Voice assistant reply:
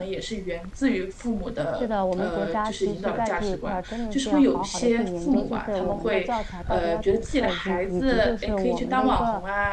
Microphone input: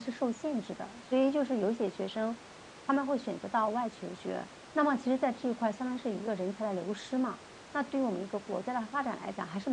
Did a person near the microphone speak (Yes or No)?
Yes